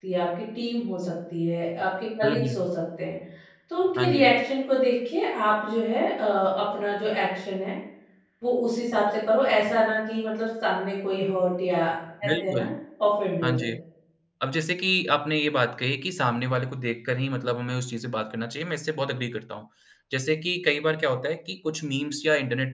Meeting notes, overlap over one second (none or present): none